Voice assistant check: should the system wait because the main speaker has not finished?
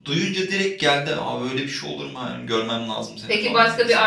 No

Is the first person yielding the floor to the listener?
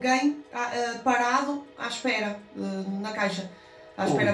Yes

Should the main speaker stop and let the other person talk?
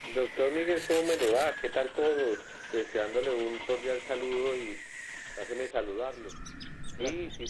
No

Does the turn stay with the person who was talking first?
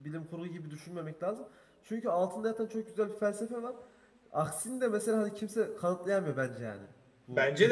No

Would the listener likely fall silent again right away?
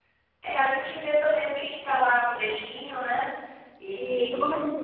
No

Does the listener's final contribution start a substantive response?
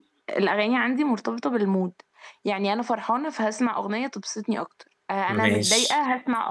No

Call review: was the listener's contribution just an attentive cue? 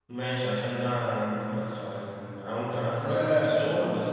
Yes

